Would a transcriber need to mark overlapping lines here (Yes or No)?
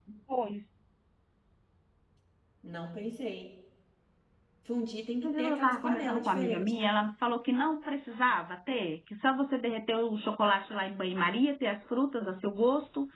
Yes